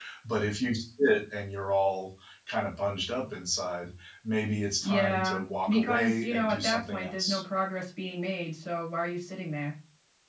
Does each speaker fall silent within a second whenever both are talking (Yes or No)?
No